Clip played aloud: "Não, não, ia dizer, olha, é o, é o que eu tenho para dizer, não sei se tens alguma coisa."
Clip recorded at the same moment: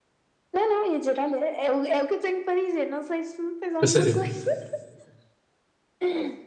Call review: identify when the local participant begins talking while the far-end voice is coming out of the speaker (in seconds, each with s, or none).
3.8 s